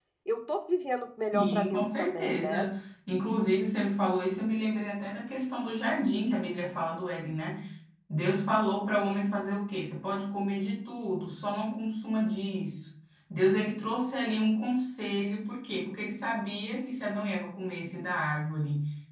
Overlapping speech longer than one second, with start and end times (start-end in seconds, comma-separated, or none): 1.3-2.7